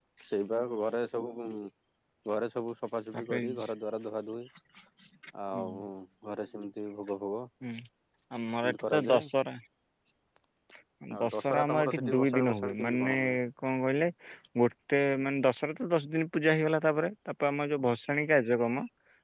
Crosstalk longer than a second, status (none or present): present